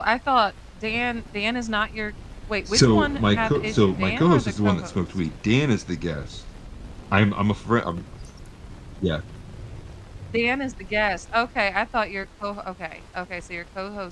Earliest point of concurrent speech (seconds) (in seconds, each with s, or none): 2.7 s